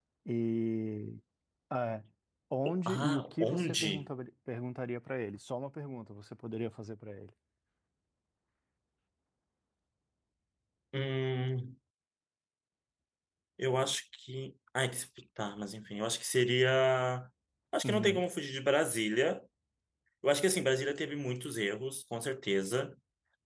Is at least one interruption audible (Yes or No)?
Yes